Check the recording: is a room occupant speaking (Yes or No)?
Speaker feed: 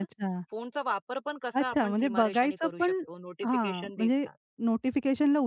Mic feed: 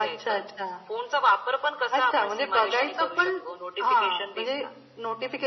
No